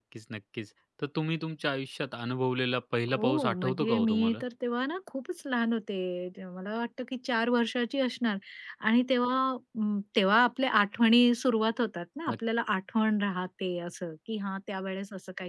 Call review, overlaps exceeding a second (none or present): present